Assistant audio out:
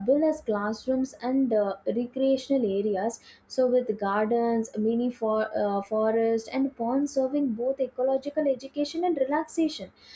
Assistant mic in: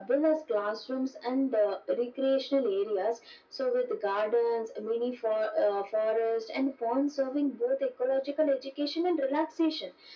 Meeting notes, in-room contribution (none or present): none